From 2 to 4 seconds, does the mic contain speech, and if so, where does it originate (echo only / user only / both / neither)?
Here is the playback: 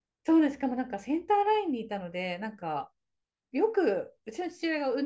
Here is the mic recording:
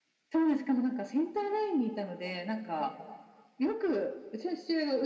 echo only